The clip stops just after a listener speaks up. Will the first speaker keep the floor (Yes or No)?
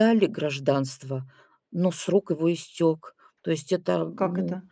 Yes